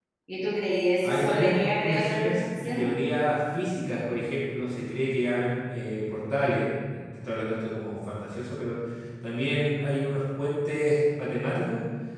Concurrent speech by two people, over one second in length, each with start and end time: 1.0-2.9

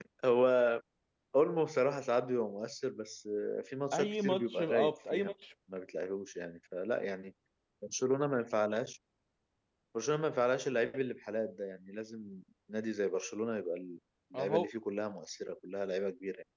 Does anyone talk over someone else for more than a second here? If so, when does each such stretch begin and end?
3.9-5.3

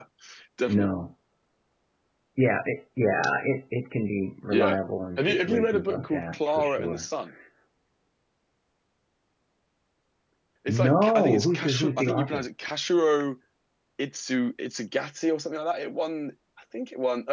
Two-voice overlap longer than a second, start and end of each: 5.2-7.0, 10.8-12.4

